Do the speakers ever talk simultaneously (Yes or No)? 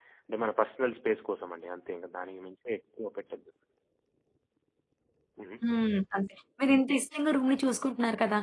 No